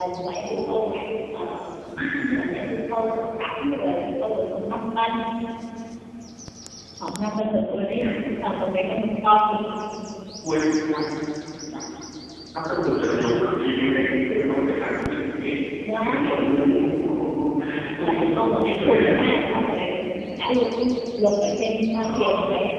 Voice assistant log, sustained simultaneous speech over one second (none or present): present